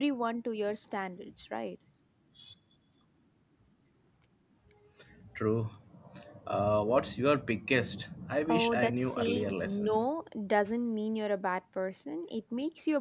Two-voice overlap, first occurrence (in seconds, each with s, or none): 8.5 s